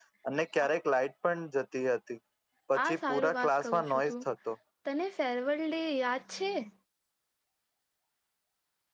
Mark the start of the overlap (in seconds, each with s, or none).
2.9 s